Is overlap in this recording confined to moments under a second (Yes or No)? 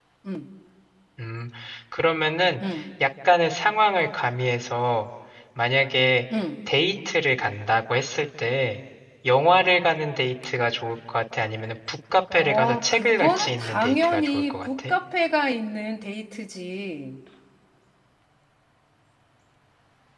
No